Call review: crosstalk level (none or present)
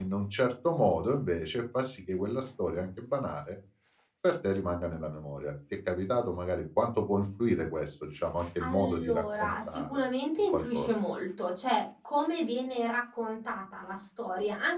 present